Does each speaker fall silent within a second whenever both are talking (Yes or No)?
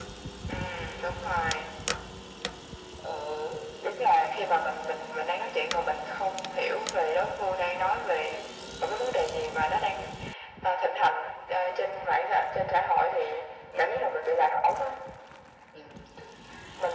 Yes